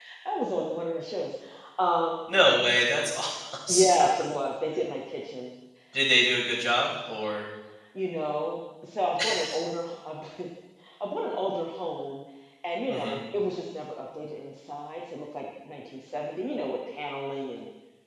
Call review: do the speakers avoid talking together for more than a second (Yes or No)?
Yes